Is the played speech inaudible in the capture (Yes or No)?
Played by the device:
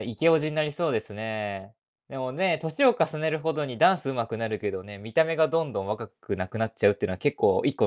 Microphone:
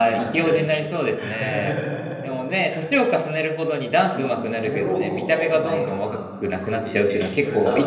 No